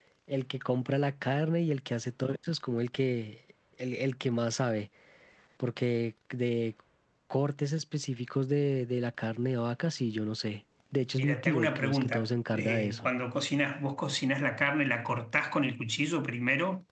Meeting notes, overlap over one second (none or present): present